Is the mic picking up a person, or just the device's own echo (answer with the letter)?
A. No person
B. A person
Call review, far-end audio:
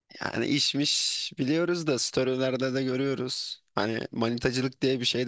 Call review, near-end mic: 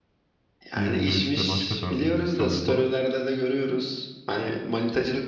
B